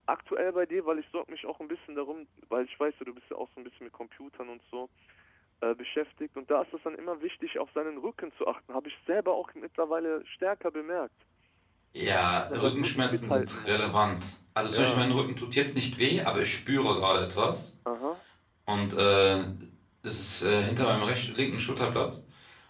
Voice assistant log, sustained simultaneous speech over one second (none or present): present